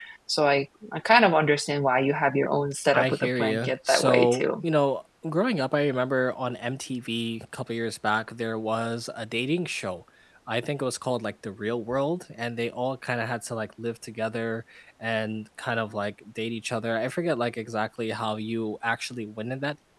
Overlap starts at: 2.9 s

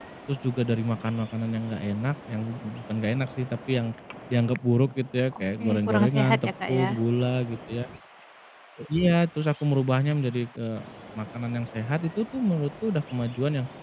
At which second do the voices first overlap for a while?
5.6 s

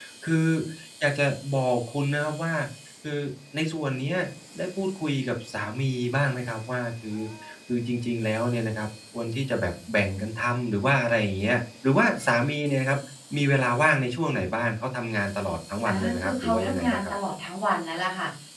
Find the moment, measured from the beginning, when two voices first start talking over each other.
15.8 s

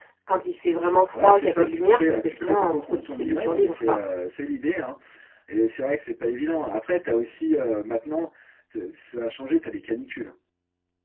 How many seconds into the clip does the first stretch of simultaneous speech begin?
1.1 s

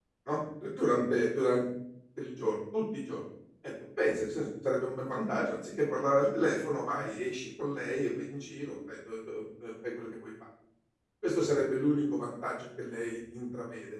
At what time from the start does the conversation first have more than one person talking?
none

